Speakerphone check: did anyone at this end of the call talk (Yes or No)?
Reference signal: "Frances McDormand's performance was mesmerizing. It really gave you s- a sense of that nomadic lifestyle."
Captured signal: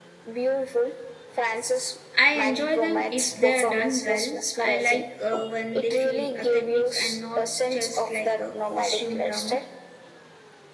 Yes